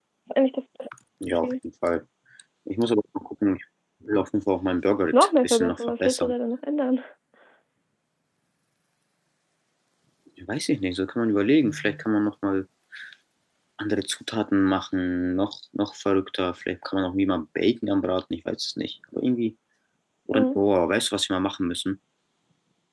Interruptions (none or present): present